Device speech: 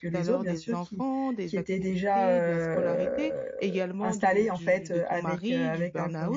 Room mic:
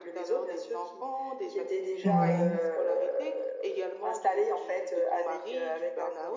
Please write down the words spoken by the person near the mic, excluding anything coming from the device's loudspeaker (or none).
Oui,